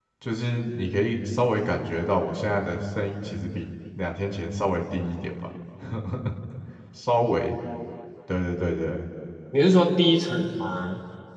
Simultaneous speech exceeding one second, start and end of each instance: none

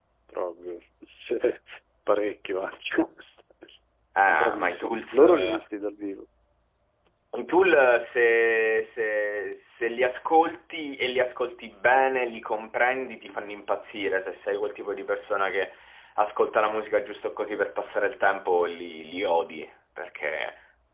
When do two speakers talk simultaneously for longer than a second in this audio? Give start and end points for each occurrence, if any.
4.3-5.6

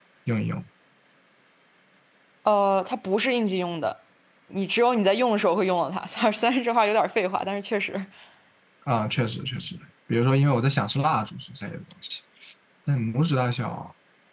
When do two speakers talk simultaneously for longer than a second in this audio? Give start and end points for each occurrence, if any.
none

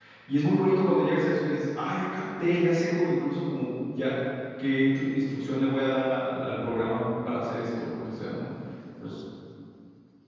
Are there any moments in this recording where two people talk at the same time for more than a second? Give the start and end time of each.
none

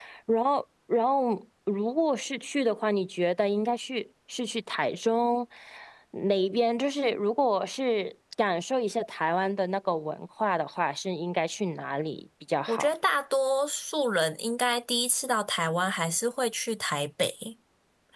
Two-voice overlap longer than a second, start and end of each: none

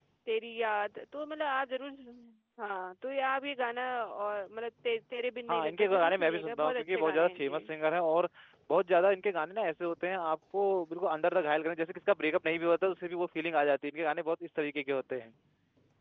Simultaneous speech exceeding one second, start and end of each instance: 5.5-7.6

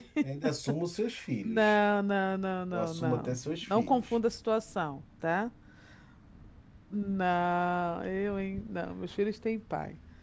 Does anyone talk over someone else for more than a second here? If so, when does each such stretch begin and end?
2.7-4.2

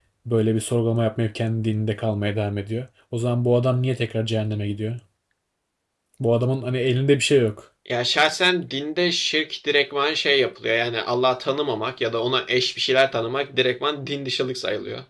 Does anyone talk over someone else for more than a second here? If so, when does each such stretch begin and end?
none

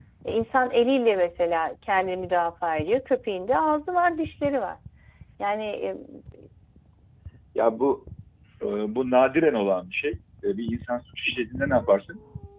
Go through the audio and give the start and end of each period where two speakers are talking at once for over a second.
none

